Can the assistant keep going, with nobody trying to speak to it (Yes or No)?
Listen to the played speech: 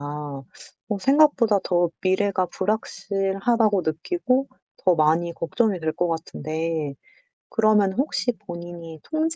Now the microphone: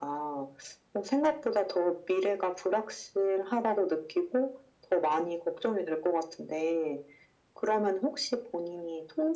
Yes